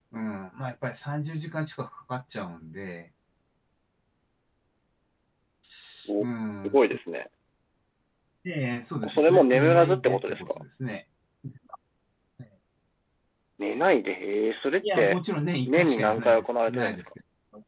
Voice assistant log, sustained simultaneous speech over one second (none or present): present